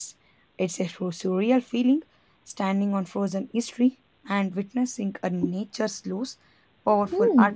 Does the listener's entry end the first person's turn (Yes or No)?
Yes